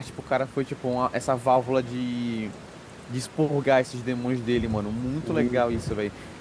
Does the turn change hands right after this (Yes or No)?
No